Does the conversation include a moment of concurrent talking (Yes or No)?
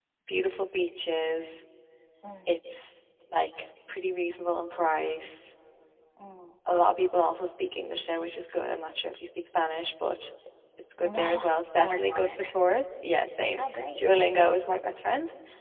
Yes